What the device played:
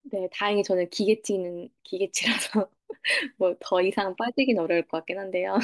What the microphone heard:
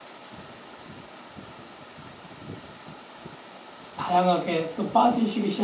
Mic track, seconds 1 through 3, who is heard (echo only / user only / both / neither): neither